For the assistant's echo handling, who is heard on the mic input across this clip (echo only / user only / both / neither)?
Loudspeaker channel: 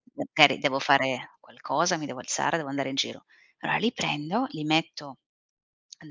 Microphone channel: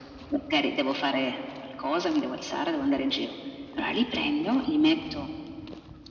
echo only